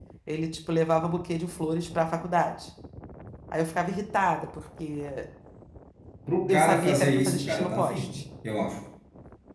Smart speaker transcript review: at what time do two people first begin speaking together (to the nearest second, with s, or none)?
6 s